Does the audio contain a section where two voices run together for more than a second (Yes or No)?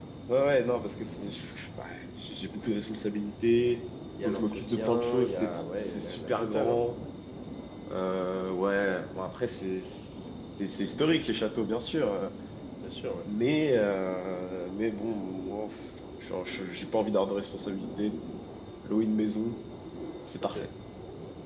Yes